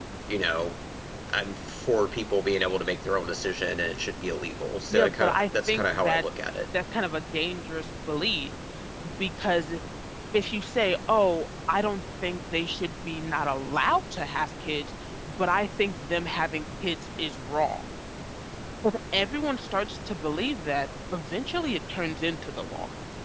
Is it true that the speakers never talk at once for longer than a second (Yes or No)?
No